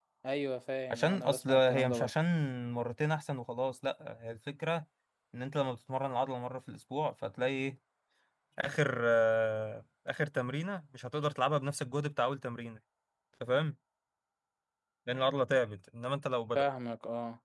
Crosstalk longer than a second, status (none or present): present